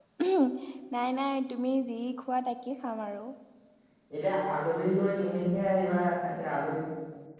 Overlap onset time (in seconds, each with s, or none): none